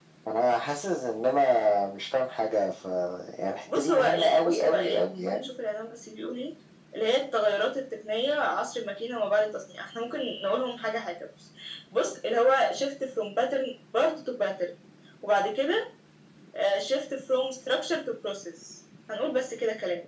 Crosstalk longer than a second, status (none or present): present